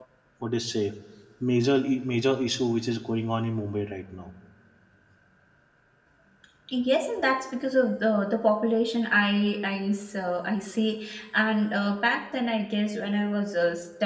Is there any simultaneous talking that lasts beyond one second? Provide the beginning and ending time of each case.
none

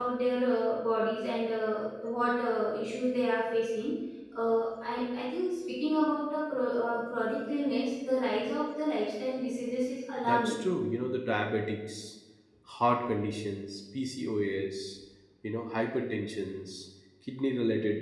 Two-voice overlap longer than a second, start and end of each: none

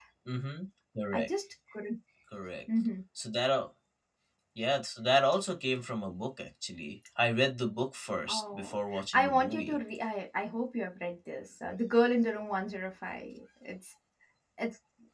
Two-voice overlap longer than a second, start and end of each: 8.3-9.8

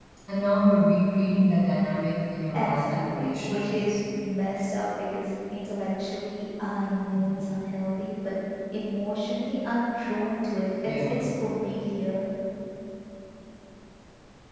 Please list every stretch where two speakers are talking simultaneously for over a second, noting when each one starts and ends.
2.5-4.0

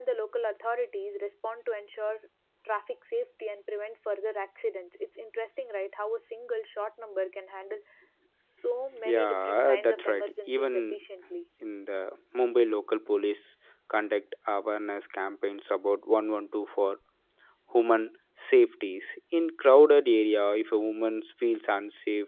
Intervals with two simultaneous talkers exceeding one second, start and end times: 9.0-10.7

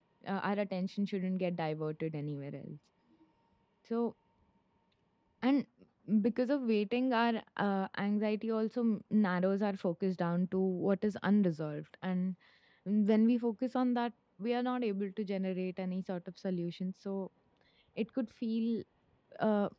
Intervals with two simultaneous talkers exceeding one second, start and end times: none

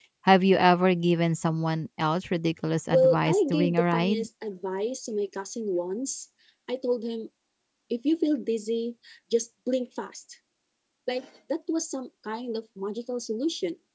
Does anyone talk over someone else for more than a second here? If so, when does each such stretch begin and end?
2.9-4.3

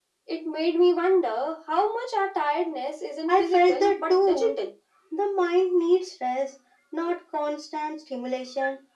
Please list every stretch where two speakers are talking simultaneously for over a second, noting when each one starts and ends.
3.3-4.6

